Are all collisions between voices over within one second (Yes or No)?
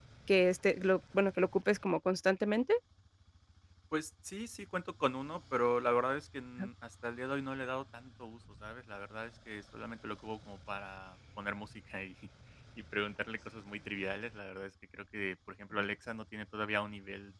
Yes